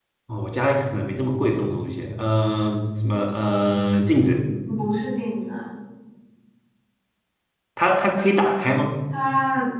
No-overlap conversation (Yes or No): Yes